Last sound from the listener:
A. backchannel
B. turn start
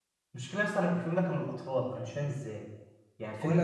A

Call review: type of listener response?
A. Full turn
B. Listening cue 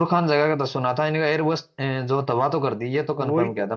A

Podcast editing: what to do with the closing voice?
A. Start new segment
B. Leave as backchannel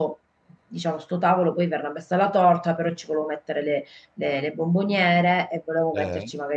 B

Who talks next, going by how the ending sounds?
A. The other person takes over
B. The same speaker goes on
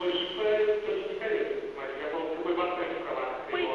A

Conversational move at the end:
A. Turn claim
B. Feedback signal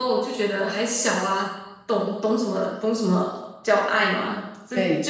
B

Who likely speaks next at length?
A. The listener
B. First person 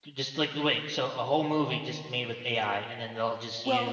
A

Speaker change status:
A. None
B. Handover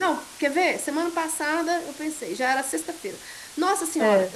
A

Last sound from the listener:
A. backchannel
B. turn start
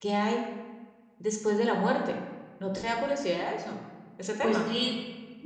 B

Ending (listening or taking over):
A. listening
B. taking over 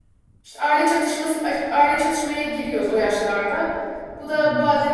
A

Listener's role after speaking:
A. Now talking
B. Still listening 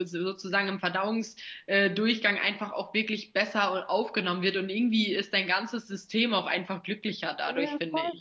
A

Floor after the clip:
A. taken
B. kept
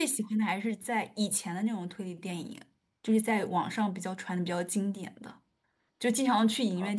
B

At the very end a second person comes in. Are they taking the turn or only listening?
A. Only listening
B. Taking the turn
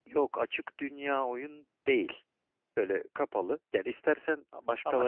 A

